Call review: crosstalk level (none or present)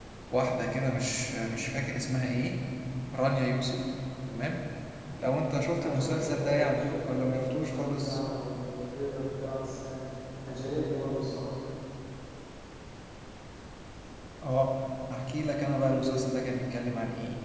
present